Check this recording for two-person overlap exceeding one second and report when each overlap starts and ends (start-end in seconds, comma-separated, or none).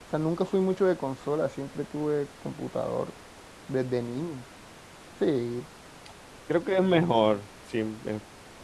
none